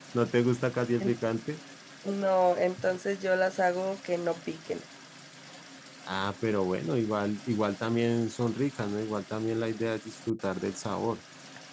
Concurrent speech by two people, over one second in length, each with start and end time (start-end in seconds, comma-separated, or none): none